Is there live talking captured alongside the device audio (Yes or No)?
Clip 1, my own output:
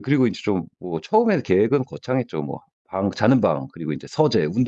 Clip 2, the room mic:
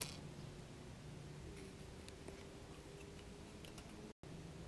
No